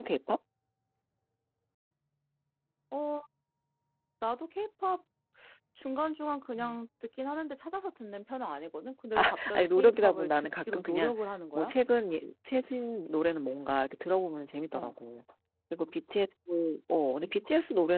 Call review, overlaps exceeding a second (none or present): present